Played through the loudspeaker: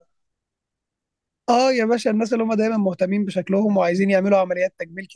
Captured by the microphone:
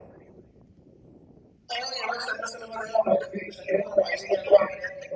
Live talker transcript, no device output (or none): none